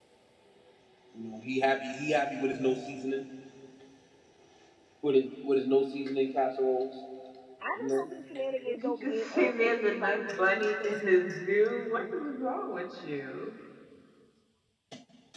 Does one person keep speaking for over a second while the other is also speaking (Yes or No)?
Yes